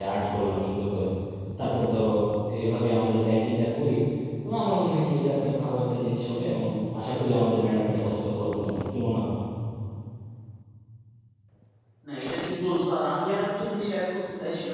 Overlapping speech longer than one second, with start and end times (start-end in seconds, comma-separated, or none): none